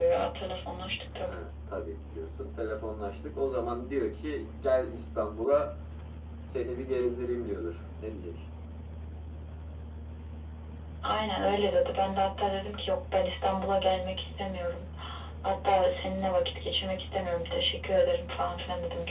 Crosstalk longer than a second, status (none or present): none